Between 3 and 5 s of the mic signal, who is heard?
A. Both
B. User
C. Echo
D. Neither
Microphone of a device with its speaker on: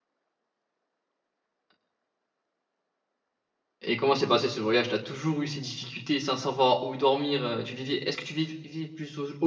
B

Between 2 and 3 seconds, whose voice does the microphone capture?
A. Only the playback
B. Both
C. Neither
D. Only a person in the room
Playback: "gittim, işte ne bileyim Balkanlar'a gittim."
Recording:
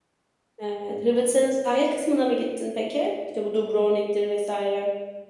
D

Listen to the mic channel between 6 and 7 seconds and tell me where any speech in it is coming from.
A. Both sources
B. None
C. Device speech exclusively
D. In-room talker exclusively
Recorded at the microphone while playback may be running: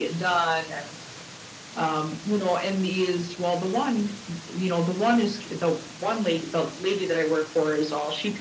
C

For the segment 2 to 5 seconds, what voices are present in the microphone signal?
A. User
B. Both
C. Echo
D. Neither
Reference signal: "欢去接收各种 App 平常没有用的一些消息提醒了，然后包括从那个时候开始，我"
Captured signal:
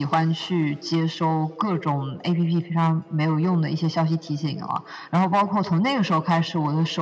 C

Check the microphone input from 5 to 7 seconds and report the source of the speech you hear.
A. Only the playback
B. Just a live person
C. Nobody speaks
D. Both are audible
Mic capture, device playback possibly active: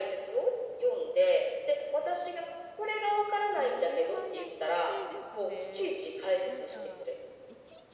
D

